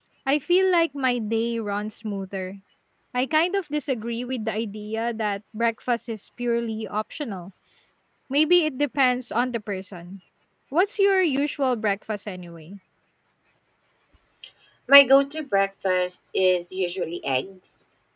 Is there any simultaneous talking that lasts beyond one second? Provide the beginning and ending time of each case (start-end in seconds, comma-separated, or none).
none